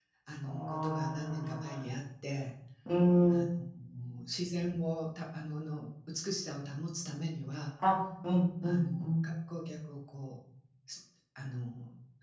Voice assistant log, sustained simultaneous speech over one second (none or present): present